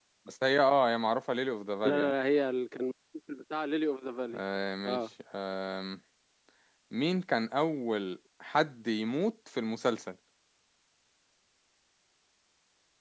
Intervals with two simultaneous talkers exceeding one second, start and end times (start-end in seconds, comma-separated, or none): none